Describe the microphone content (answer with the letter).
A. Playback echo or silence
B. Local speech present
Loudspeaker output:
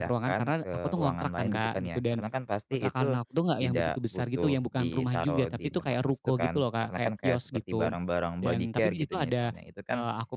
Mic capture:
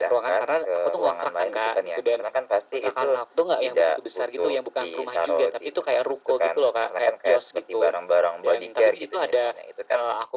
A